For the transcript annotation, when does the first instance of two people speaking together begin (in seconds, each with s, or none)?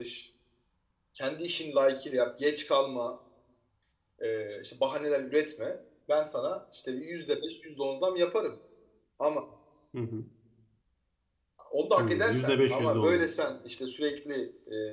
12.0 s